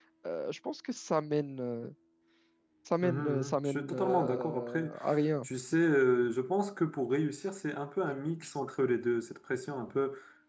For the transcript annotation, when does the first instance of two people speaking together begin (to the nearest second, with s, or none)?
3 s